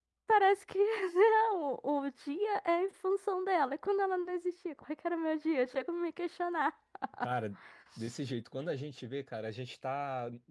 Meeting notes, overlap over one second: none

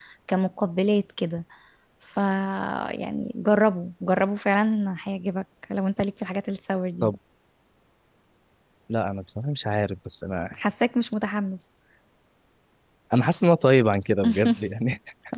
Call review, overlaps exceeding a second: none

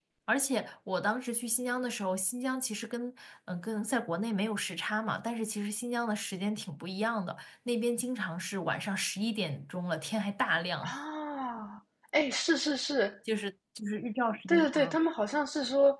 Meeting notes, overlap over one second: none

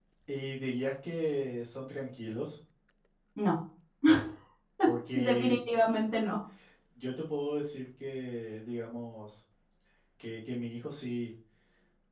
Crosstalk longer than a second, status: none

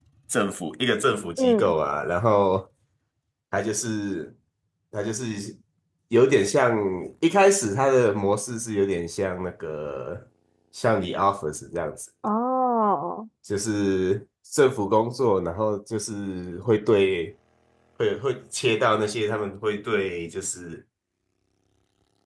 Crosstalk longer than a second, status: none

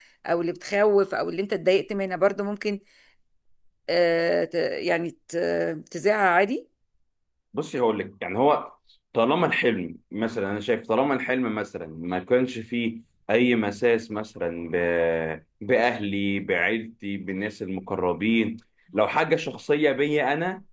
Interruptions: none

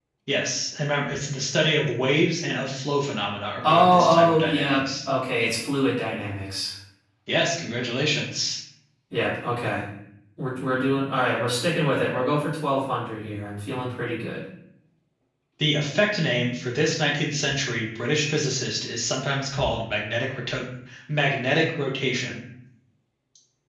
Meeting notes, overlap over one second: present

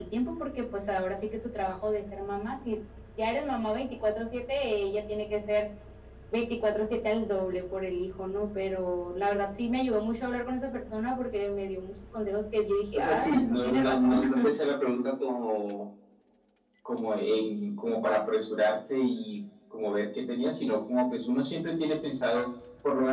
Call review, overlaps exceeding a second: present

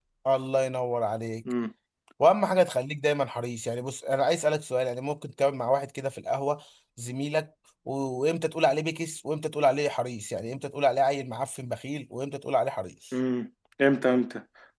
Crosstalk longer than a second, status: none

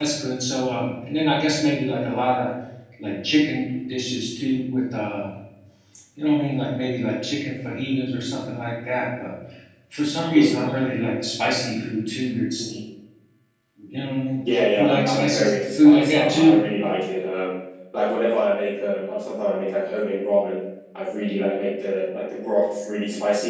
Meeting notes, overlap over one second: present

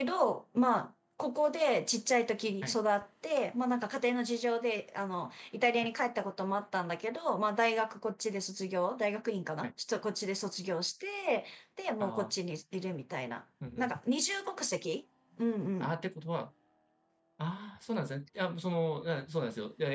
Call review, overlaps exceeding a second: none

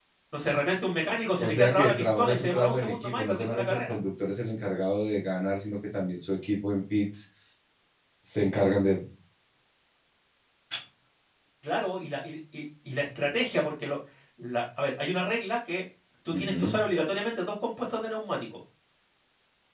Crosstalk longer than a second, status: present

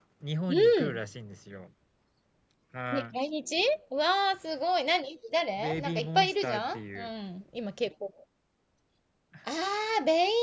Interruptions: present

